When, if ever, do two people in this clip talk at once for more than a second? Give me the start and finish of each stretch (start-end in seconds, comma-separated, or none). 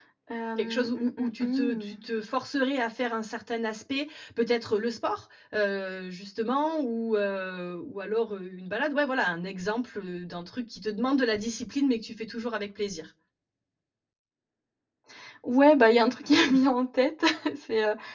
0.6-2.0